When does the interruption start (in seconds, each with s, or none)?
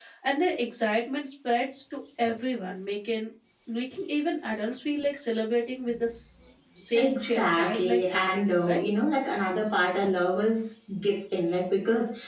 6.9 s